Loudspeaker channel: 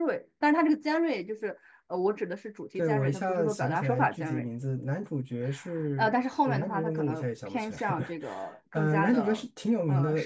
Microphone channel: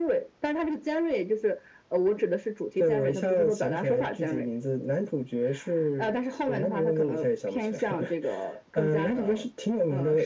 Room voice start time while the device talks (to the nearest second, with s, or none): none